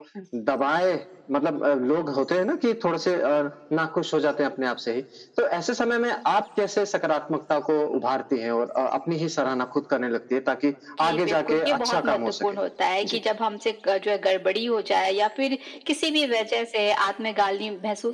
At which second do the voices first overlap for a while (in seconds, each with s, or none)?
11.1 s